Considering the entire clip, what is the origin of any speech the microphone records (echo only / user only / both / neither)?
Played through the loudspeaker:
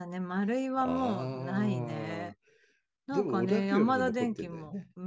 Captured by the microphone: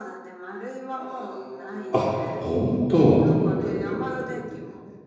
both